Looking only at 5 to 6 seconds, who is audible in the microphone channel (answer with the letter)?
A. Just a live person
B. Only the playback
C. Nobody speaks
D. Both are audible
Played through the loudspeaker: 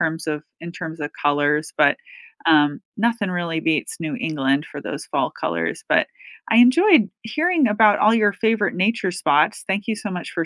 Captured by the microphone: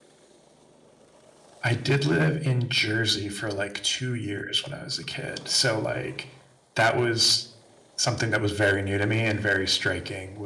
A